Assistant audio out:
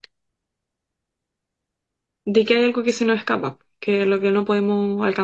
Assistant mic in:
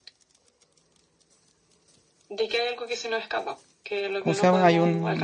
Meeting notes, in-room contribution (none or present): present